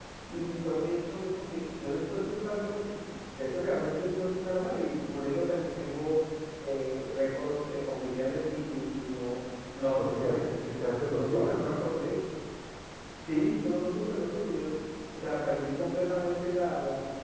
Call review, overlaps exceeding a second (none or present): none